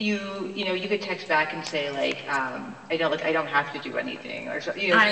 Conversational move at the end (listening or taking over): listening